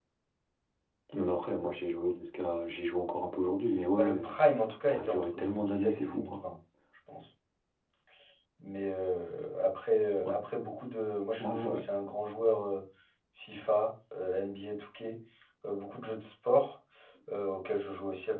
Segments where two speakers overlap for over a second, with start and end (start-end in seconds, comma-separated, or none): 4.8-6.4